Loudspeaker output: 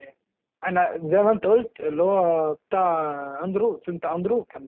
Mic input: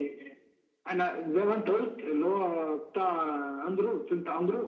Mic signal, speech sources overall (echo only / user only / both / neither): echo only